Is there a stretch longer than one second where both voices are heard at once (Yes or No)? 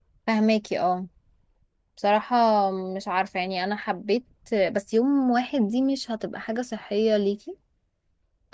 No